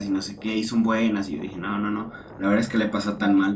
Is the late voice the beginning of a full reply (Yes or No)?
No